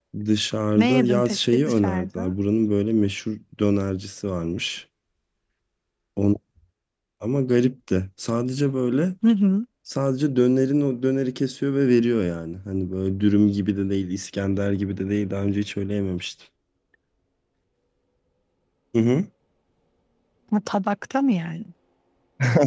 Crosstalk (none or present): present